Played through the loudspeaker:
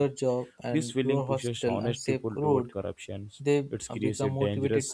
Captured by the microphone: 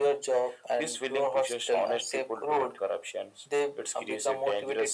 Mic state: echo only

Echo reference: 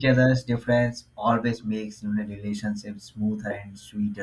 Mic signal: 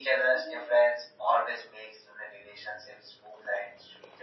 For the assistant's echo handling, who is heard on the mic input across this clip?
both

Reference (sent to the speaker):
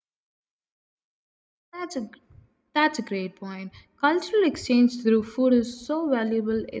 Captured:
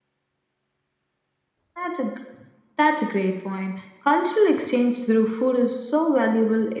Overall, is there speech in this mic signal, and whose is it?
echo only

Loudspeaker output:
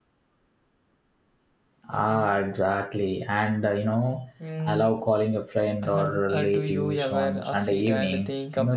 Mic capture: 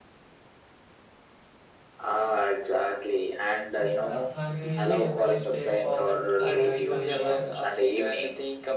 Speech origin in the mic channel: both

